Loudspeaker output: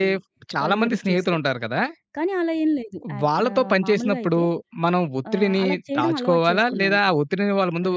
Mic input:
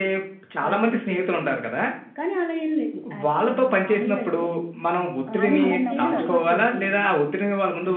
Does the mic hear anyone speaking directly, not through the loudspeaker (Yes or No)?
Yes